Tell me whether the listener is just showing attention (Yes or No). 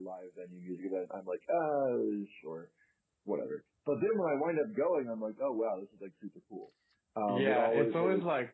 No